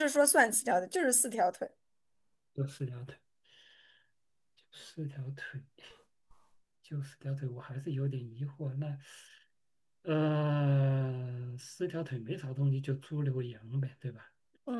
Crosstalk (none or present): none